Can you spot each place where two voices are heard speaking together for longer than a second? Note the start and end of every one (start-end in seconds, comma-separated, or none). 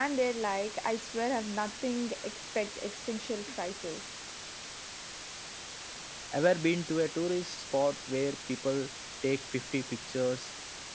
none